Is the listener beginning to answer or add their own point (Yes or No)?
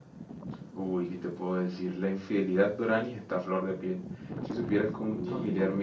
No